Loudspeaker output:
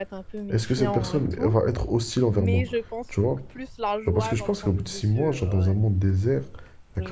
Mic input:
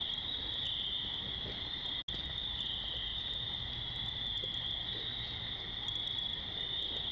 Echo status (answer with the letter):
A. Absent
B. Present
A